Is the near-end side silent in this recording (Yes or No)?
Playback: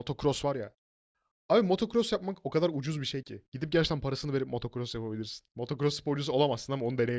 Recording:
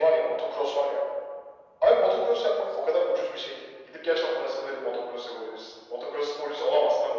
Yes